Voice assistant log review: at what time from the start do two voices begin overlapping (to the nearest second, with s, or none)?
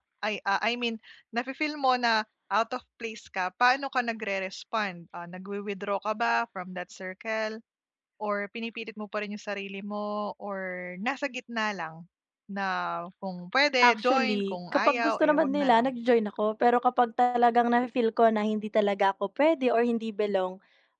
14 s